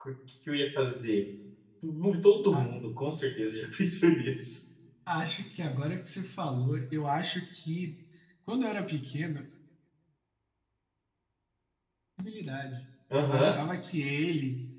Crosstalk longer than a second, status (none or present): none